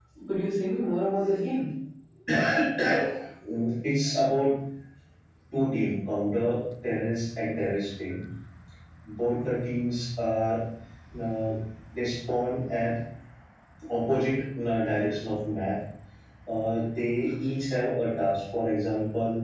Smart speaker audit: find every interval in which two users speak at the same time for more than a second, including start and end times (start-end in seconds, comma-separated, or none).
none